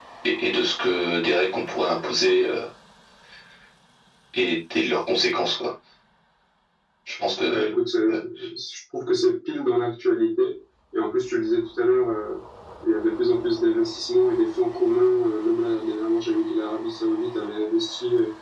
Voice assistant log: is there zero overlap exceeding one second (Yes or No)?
Yes